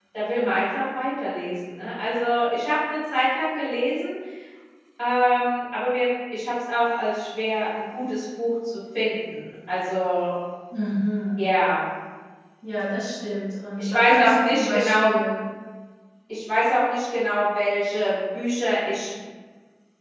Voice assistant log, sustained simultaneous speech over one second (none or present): present